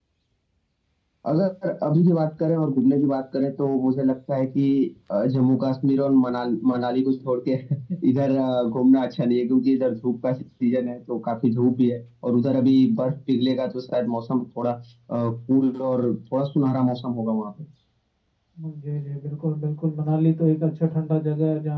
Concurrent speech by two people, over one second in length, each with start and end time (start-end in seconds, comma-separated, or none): none